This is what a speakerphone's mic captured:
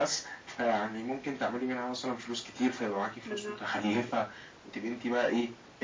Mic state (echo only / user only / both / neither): both